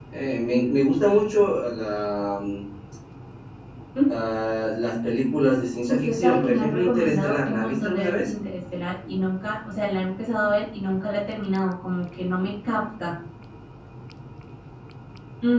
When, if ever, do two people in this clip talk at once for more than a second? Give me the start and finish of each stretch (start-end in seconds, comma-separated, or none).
5.9-8.3